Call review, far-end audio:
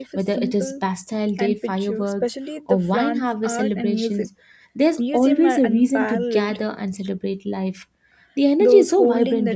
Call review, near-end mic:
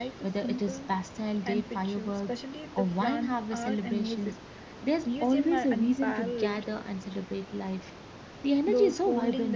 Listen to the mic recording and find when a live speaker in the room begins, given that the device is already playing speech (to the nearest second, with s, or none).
none